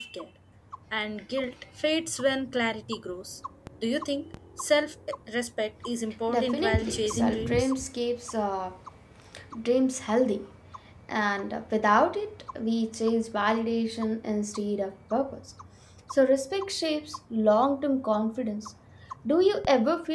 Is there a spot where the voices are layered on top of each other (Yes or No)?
Yes